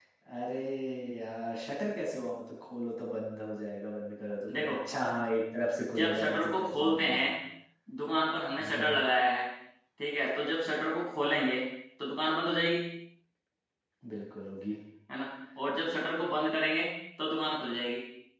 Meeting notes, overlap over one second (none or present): present